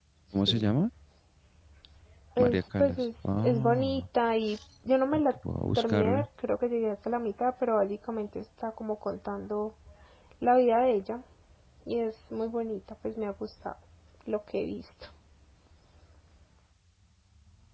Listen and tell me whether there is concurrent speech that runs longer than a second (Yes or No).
Yes